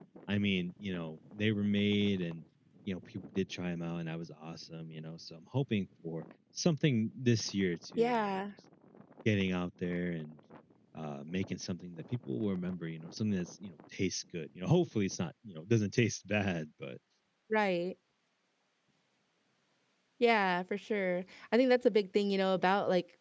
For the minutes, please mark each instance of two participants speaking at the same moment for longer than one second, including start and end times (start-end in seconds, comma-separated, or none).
none